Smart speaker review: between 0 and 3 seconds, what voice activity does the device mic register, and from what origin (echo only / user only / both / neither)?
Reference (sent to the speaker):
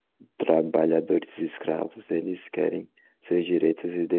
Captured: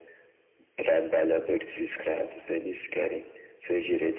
echo only